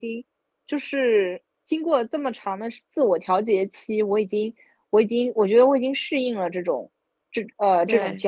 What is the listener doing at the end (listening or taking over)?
listening